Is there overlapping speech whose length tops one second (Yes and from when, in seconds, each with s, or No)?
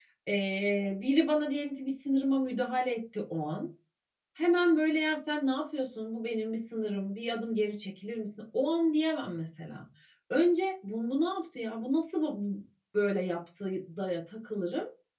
No